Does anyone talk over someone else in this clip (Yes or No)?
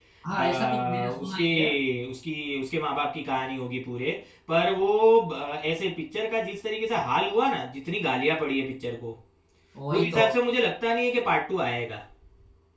Yes